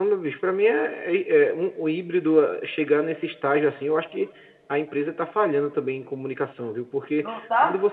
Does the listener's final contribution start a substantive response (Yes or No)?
No